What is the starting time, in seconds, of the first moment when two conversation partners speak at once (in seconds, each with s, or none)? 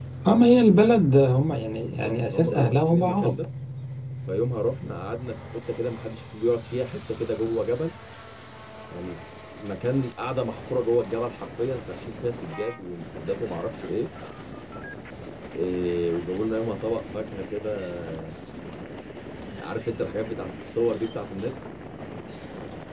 1.8 s